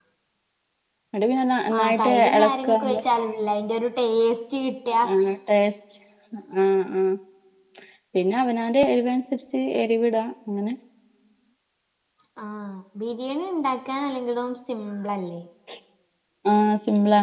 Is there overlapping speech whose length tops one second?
Yes, from 1.8 s

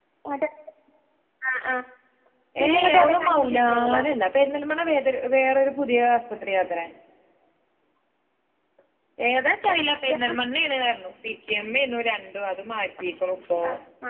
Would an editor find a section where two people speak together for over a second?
Yes, from 2.7 s

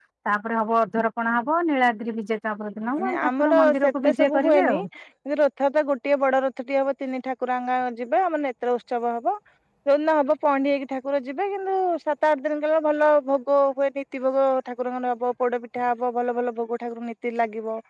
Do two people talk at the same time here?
Yes, from 3.0 s

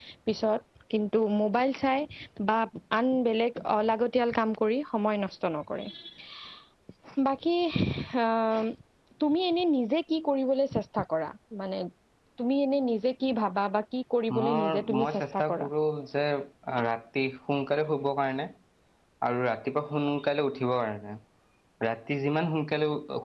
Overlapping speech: Yes, from 14.3 s

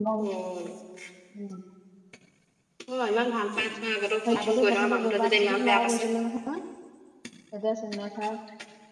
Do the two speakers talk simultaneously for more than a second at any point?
Yes, from 4.2 s

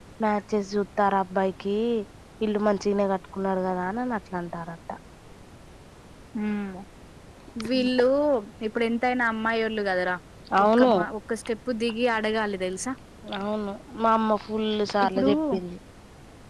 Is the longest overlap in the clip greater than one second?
No

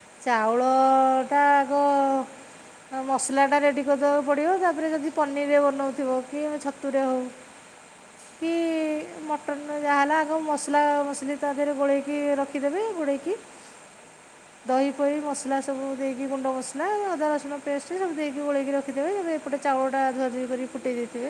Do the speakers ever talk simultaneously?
No

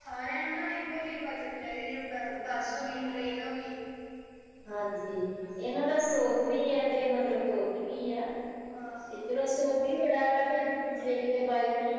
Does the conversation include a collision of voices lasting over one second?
No

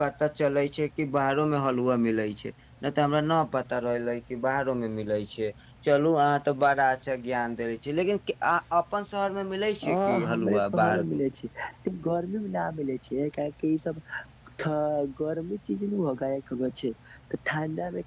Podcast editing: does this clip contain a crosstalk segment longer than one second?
Yes, from 9.8 s

